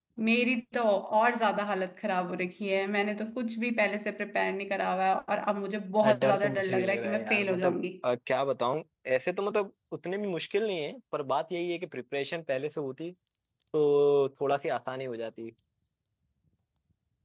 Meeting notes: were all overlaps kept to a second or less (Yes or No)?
No